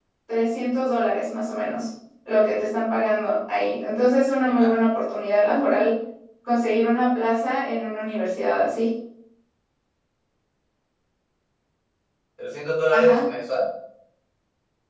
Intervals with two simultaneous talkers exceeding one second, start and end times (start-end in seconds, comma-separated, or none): none